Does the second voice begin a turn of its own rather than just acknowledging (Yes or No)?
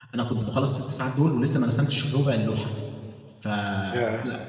No